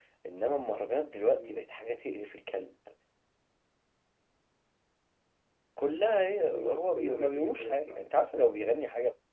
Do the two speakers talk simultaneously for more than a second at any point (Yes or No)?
Yes